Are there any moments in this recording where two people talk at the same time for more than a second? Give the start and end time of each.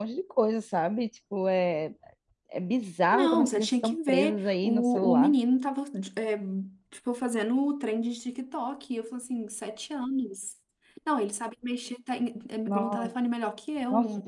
3.1-5.3

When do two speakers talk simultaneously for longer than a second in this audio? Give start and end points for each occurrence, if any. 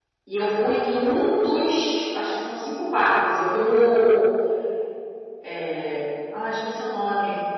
none

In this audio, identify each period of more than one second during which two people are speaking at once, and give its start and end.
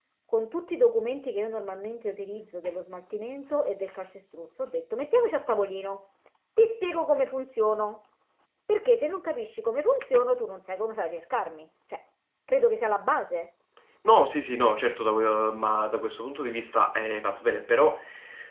none

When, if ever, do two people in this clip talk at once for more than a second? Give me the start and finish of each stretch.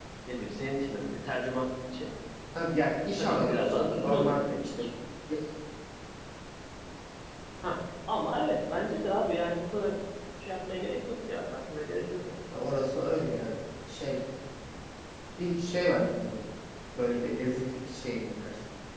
3.2-4.8

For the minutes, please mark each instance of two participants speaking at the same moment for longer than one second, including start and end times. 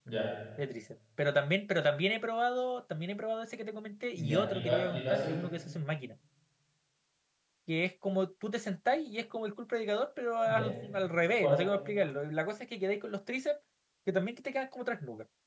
4.2-5.4

